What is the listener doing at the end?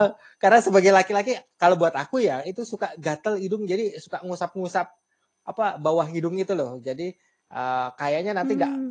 listening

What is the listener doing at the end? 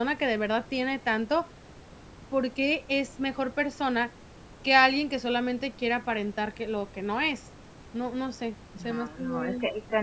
taking over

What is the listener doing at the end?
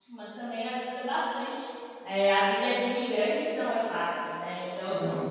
listening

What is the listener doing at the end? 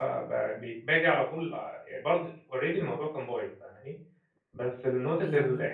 listening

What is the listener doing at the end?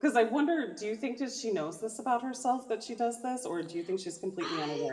taking over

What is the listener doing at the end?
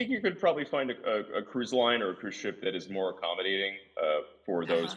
taking over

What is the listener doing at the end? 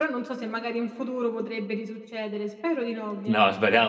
taking over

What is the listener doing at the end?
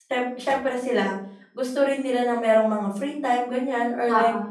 listening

